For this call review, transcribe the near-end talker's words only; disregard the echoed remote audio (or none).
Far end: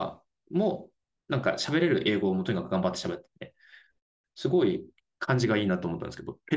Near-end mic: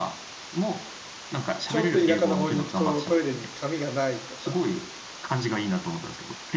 ちょっと田舎の方に行くとトイレに紙がないとか、